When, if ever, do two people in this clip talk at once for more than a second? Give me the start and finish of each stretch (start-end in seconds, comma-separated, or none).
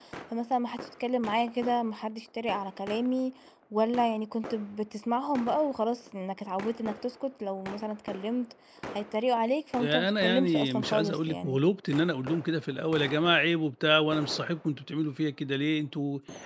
9.8-11.6